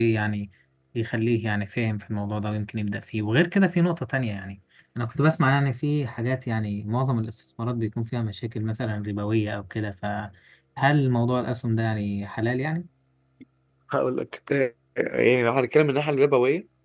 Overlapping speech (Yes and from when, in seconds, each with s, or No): No